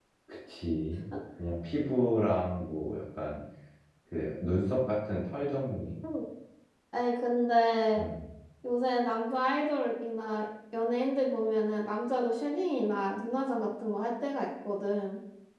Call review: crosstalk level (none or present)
none